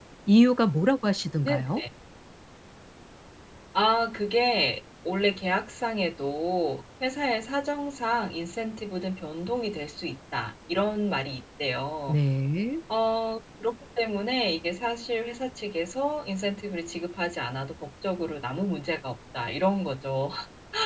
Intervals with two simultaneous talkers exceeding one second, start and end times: none

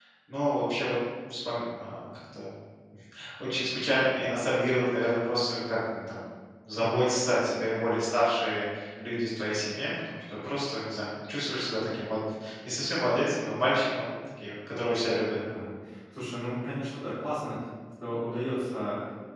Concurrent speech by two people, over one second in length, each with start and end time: none

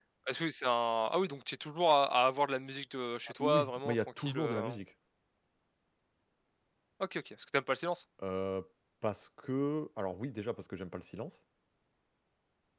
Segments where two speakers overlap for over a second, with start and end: 3.4-4.7

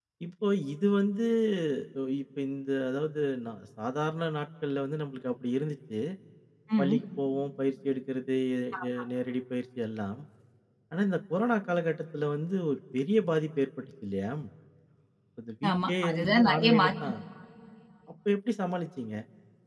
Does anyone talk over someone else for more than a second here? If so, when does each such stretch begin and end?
15.7-16.9

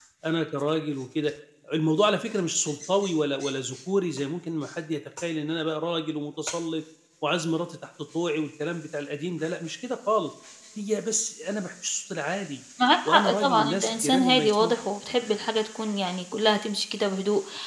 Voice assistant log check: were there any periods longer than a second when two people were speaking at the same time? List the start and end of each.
13.1-14.7

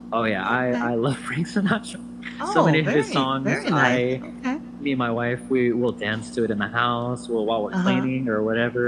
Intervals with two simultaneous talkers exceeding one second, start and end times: 2.5-4.0

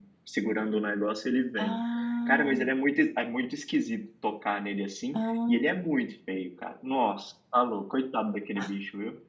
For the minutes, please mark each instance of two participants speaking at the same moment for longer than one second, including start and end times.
none

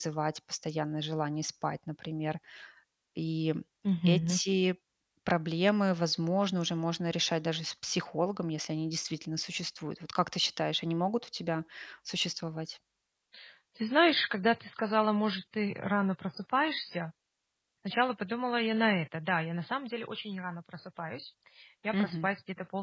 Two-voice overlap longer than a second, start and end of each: none

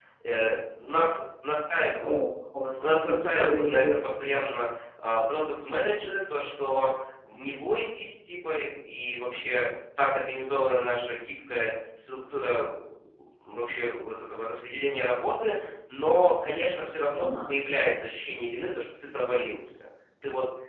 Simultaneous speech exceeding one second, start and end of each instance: 2.8-4.1

